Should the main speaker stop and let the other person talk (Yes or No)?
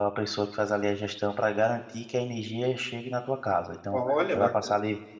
No